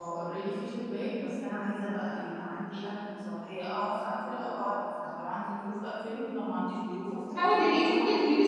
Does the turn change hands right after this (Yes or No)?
Yes